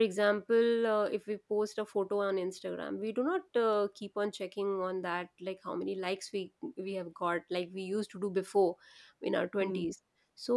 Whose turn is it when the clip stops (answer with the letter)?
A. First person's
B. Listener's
A